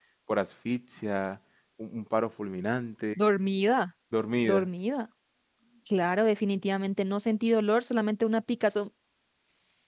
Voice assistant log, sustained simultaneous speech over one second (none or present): none